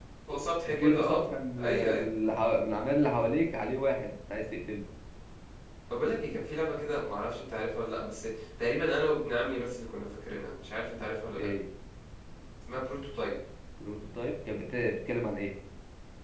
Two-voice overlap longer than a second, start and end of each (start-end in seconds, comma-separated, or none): none